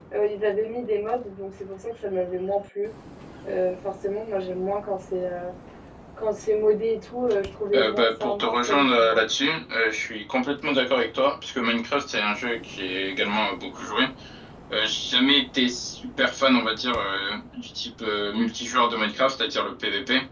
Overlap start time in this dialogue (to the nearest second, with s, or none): 8 s